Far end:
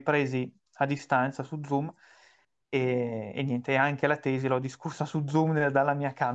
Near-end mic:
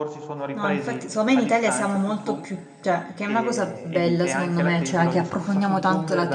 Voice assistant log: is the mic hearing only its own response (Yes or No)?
No